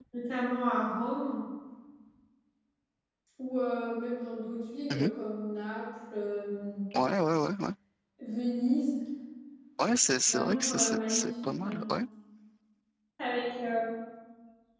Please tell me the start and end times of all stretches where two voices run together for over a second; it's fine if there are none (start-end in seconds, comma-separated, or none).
10.3-11.8